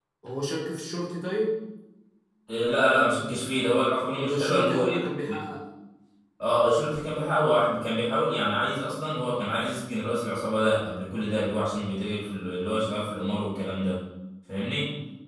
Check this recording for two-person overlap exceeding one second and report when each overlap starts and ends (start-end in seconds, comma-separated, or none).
4.2-5.4